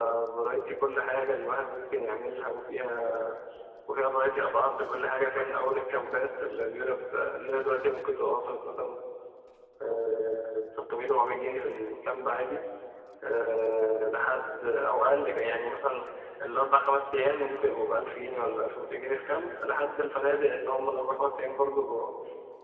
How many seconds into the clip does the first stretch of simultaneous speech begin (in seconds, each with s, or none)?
none